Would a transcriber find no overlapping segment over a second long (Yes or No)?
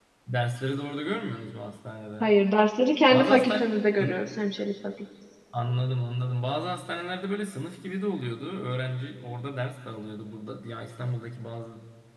Yes